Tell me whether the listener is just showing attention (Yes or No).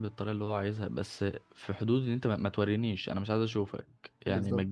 Yes